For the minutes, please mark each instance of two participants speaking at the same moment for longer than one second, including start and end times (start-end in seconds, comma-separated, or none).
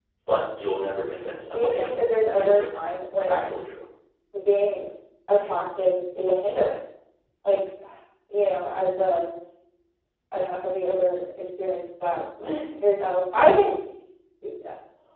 1.4-2.7